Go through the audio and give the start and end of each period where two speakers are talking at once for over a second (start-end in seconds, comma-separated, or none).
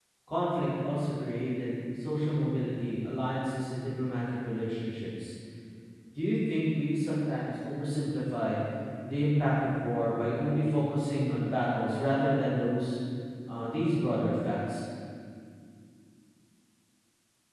none